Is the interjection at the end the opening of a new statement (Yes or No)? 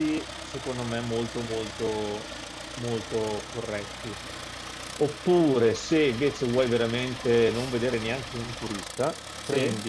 No